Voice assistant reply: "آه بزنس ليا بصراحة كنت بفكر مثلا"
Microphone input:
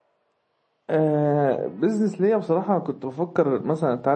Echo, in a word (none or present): present